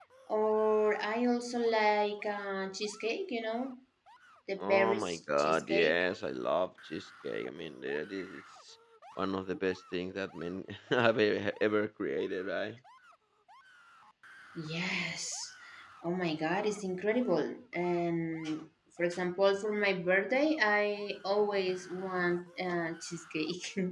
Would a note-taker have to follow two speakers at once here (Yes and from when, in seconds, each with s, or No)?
Yes, from 4.6 s